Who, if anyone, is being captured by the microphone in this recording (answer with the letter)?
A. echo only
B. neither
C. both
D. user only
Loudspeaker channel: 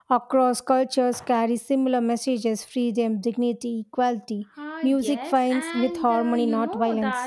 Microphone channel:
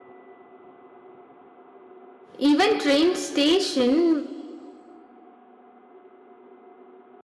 D